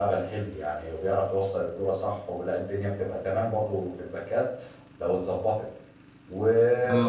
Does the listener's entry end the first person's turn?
No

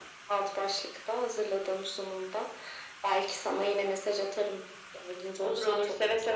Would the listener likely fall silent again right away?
No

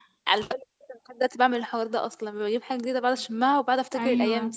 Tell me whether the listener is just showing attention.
No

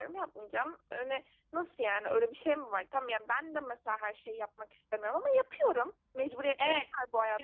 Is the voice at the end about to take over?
Yes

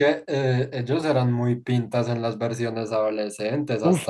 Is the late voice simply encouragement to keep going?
No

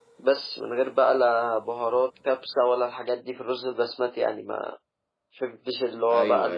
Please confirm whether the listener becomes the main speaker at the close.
No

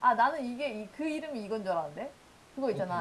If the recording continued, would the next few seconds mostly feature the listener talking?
No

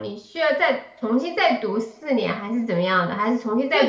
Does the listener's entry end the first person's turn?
Yes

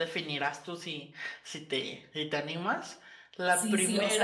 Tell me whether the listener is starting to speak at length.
Yes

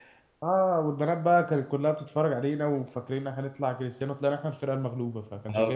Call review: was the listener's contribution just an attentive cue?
No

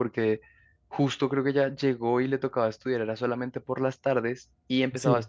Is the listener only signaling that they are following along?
Yes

